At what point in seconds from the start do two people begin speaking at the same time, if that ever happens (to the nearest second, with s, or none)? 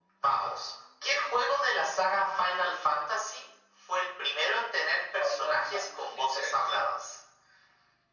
5 s